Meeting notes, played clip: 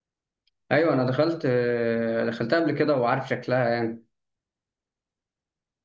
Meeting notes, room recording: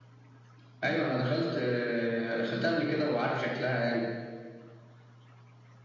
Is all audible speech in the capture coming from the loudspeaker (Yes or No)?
Yes